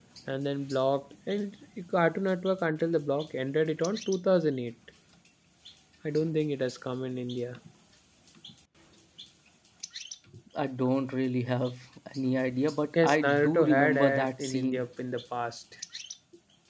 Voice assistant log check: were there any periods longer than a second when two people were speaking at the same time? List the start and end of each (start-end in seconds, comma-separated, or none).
13.0-14.8